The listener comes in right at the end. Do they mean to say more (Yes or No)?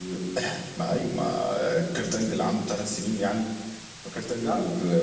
No